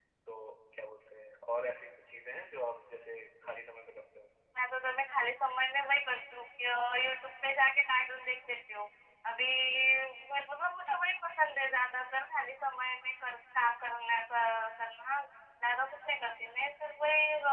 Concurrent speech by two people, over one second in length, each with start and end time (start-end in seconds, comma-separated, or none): none